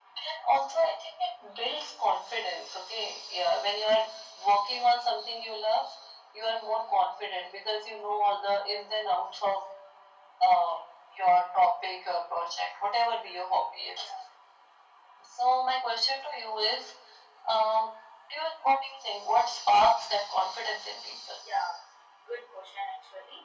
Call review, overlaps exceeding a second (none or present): none